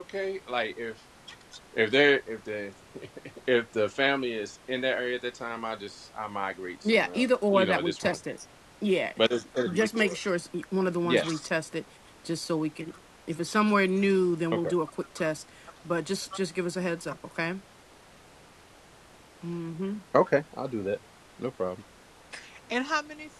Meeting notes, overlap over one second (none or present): present